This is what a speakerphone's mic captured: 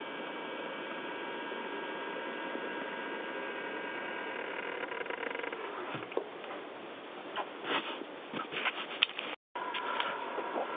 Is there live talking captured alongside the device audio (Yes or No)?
No